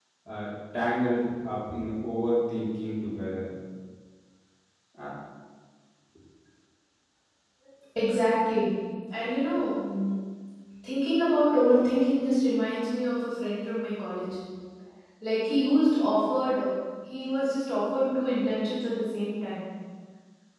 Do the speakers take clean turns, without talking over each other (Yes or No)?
Yes